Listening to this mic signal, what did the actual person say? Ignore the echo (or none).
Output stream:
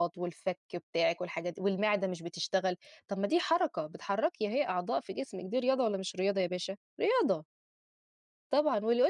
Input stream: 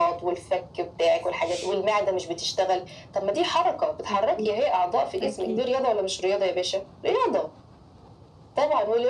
أكيد. أكيد.